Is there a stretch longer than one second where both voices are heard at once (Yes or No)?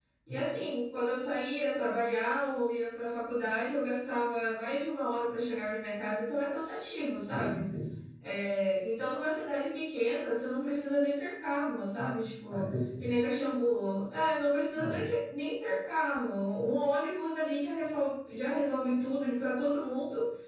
No